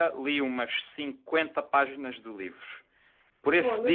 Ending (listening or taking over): listening